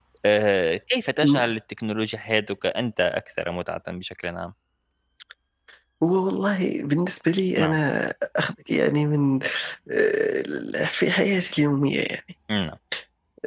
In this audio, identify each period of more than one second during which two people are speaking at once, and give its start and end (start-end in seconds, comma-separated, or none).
none